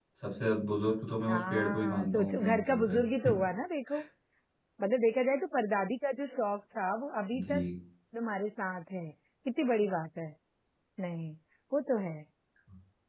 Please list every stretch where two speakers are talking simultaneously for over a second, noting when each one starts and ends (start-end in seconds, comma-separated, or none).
1.3-3.3